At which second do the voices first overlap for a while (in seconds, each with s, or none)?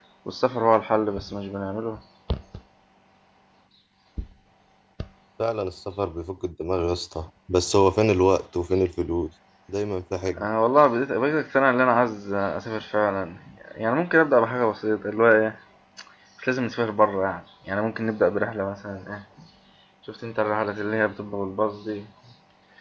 none